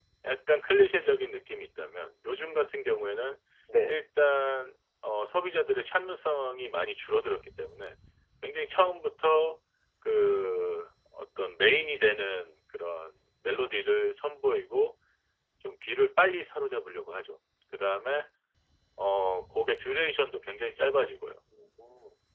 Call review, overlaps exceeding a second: none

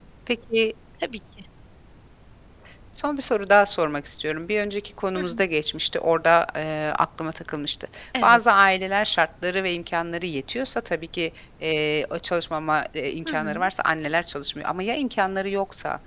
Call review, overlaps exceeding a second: none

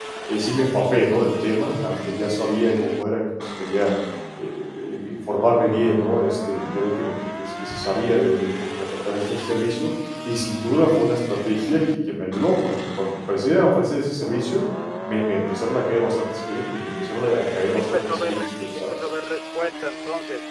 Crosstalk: present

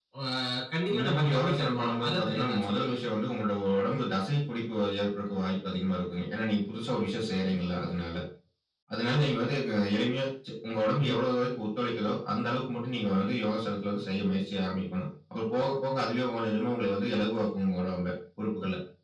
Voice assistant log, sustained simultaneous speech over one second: present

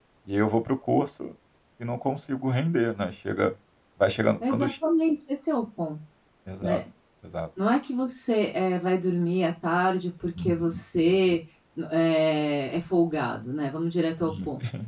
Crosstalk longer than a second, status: none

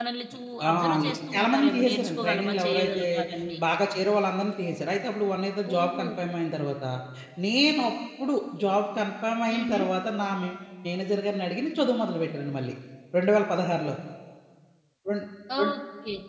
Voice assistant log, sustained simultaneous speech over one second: present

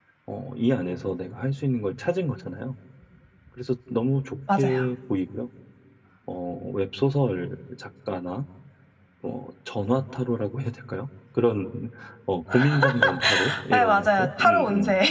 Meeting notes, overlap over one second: present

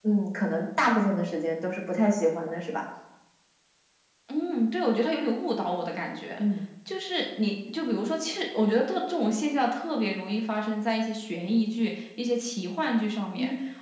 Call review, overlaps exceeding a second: none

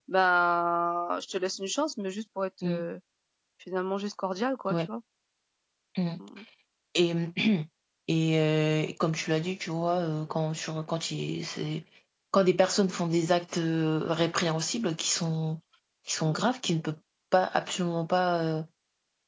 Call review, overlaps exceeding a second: none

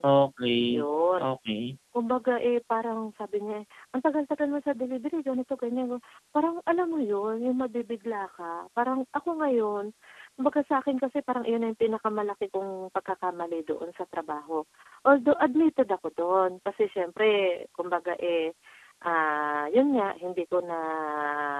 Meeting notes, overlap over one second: none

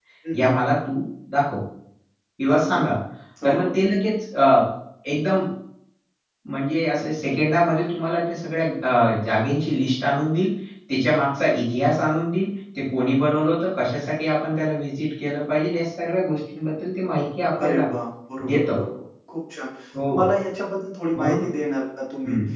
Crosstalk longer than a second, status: none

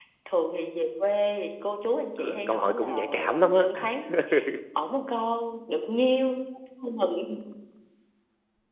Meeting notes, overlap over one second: present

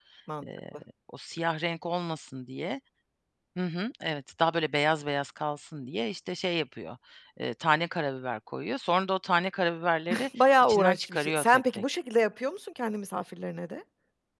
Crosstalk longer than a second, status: present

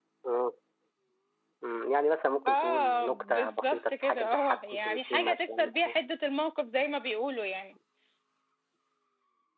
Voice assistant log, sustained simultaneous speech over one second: present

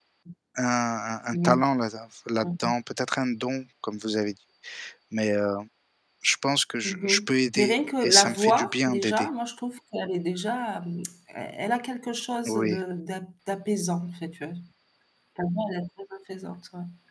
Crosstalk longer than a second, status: present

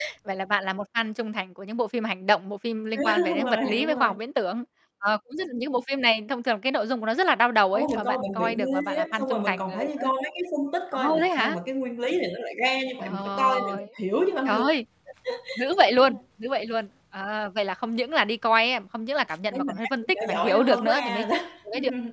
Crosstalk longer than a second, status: present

